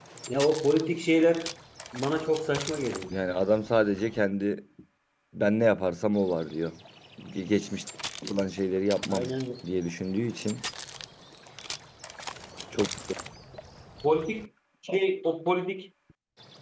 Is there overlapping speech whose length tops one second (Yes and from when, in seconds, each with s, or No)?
No